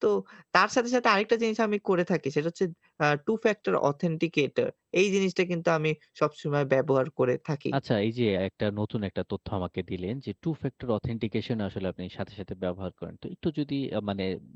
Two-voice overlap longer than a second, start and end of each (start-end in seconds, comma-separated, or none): none